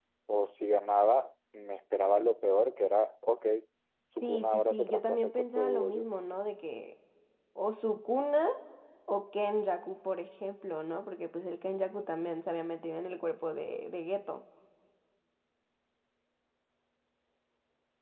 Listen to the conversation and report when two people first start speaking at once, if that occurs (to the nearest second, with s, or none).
4 s